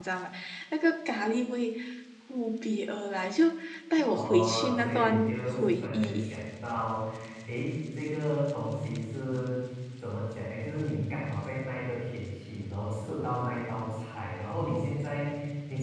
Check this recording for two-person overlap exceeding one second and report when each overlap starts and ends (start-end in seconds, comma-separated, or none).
4.1-6.3